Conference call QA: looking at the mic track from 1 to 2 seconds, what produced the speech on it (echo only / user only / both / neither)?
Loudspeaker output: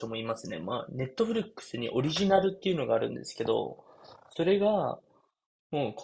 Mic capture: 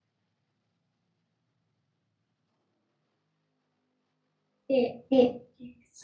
neither